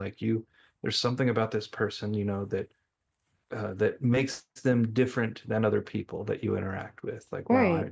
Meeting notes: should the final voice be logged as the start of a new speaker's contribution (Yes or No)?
No